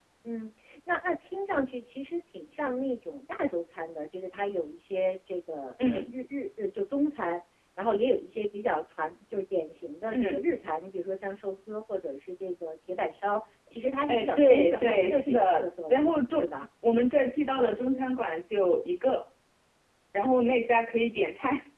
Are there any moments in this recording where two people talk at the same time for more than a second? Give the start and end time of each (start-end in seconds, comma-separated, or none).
14.1-16.5